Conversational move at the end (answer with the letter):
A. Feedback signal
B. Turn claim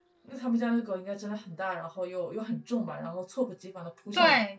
B